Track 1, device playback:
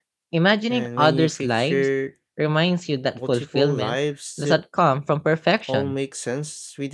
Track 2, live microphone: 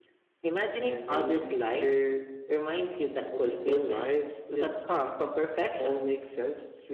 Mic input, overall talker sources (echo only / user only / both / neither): echo only